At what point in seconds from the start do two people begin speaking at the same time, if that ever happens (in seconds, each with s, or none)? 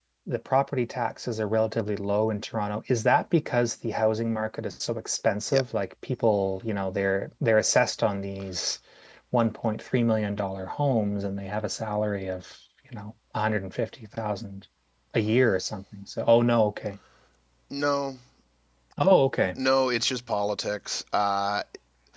none